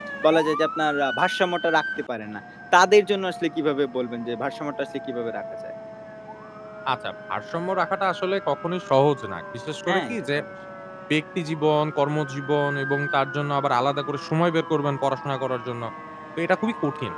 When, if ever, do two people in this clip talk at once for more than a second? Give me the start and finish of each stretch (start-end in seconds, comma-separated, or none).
none